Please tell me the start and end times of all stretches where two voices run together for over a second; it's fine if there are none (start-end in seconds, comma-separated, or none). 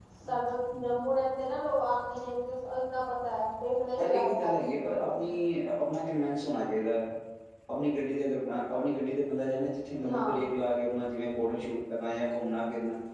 4.0-5.2